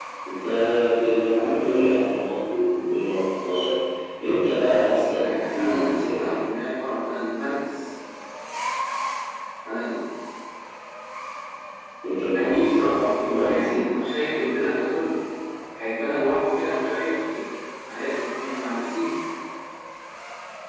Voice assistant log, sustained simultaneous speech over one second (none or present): present